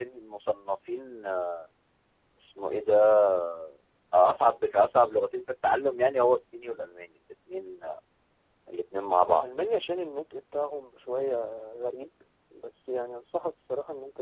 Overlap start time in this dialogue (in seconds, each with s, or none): none